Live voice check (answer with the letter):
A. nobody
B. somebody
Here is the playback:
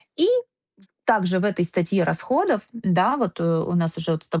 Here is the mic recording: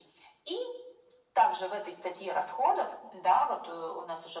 A